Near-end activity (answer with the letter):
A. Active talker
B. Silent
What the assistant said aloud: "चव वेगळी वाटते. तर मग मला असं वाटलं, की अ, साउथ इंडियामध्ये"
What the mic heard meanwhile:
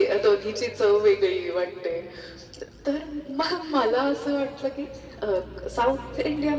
B